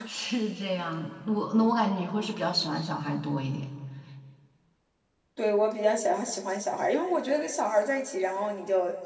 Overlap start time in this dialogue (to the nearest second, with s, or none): none